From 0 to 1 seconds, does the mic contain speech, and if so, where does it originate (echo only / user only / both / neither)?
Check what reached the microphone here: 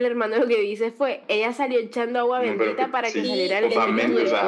echo only